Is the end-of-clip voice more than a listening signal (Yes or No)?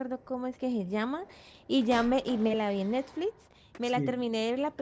No